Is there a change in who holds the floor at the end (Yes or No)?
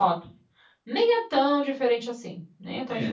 Yes